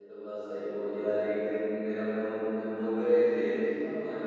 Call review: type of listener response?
listening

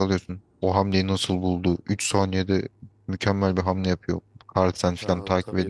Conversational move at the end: taking over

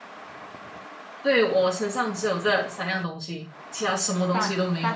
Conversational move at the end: taking over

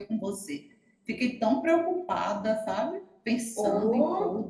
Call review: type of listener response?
taking over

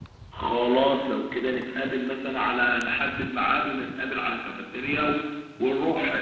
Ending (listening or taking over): taking over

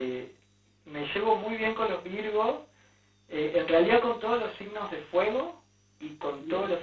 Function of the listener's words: listening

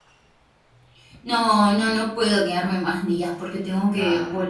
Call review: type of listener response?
listening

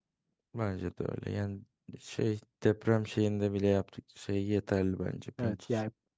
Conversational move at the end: taking over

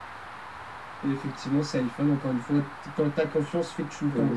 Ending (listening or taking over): taking over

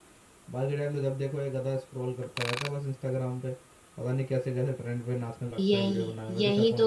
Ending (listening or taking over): taking over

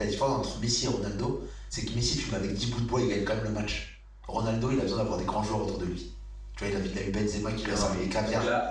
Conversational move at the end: taking over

